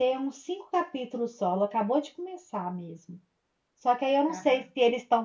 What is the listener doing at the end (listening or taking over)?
listening